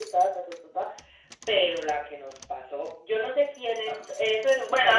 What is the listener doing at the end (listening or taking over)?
taking over